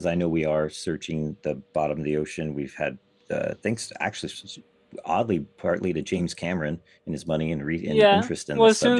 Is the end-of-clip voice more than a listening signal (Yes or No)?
Yes